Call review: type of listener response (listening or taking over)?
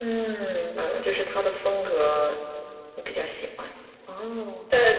taking over